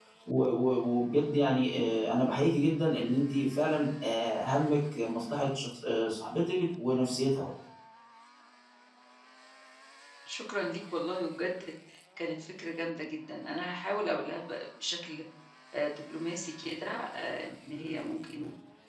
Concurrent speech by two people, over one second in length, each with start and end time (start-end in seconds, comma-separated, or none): none